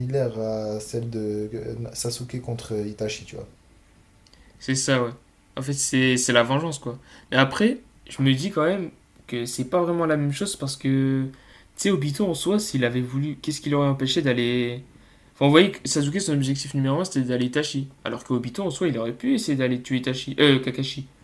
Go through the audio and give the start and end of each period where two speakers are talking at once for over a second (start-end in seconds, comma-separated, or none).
none